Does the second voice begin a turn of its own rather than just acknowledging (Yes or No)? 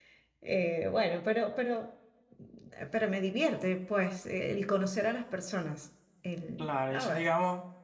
Yes